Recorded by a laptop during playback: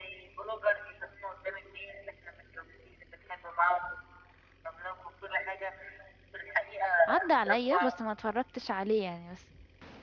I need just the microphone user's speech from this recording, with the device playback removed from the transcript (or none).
عدى عليا بس ما اتفرجتش عليه يعني بس